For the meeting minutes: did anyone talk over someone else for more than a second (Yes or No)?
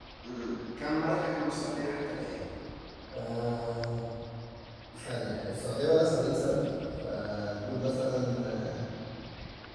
No